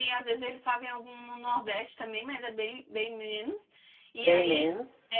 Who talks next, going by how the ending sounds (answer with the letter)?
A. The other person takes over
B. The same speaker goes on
B